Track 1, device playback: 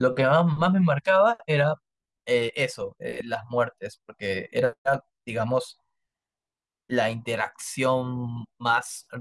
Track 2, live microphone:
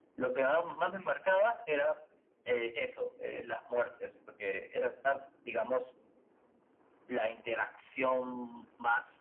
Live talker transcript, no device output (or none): none